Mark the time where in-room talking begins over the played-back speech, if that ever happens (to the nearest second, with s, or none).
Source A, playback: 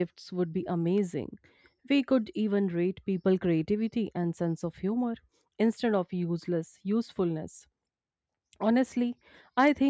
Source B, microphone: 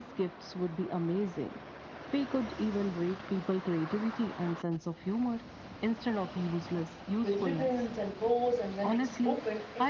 7 s